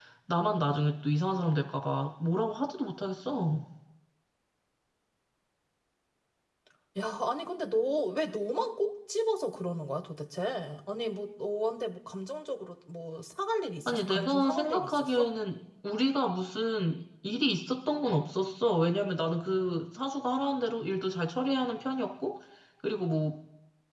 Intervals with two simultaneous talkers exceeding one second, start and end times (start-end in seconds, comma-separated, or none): 13.9-15.3